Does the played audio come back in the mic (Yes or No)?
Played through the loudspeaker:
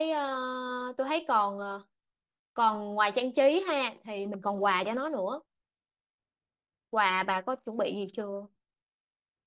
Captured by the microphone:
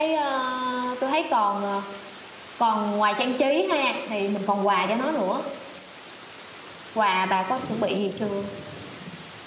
Yes